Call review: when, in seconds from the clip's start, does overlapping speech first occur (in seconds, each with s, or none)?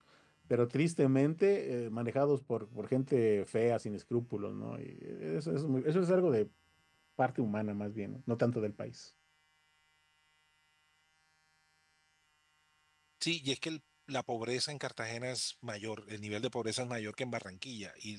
none